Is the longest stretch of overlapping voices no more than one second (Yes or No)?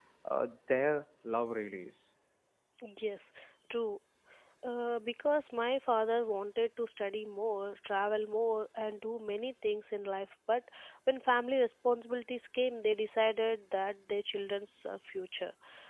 Yes